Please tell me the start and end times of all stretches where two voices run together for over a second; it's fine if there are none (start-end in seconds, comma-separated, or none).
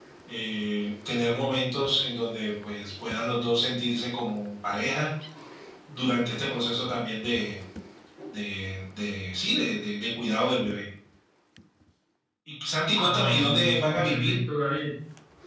13.0-14.4